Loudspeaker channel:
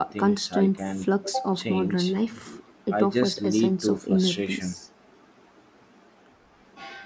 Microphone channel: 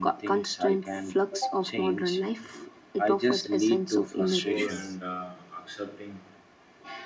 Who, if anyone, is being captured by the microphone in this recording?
both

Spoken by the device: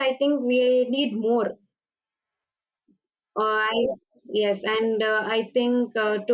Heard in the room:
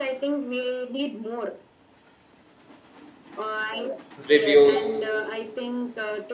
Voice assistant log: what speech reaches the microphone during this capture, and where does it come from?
both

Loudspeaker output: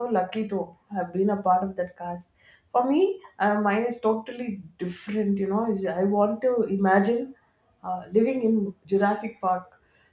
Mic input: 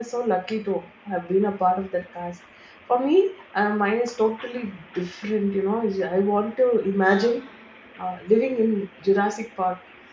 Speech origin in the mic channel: both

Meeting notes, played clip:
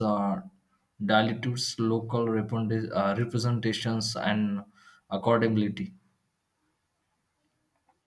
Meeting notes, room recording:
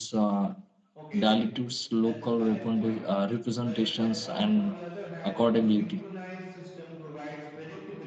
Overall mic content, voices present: both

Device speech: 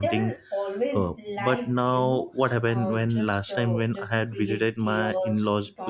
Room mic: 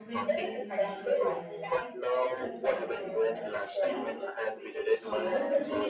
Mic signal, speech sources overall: both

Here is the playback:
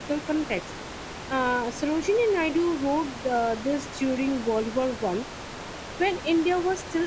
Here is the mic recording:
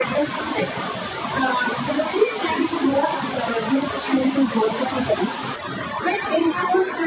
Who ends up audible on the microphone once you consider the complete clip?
echo only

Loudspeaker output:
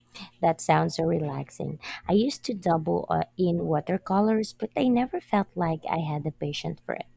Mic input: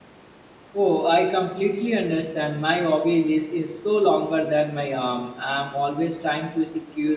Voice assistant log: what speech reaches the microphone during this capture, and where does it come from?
user only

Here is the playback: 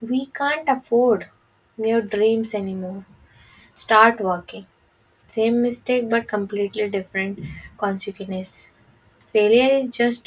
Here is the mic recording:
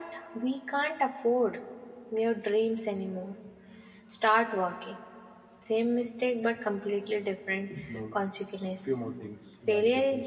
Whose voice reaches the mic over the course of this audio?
both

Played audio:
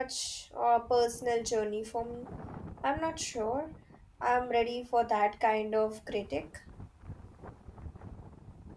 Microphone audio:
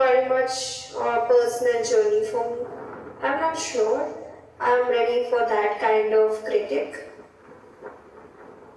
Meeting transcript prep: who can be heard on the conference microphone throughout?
echo only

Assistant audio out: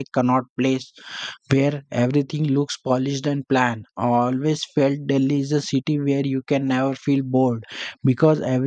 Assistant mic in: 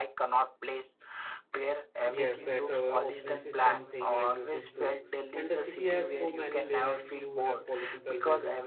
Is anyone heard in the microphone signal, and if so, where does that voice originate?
both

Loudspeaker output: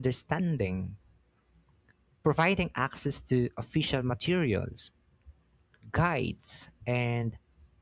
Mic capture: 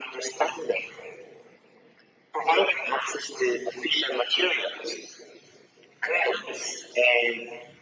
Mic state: echo only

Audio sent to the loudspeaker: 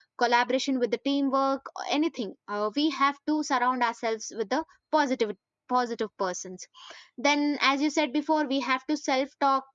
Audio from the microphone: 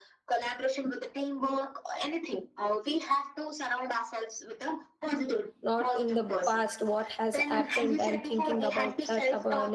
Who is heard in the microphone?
both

